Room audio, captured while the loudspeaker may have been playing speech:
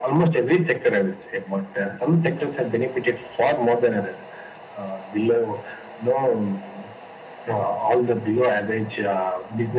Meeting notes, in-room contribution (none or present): none